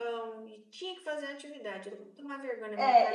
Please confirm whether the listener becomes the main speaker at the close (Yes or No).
Yes